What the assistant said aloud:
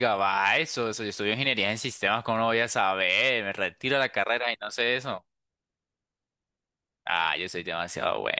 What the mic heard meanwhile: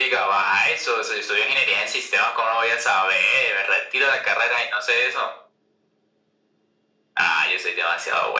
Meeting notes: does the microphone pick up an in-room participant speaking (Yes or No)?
No